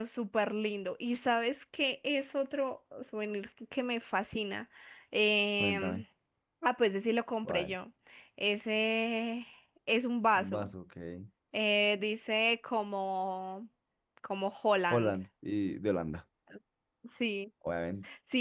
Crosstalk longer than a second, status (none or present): none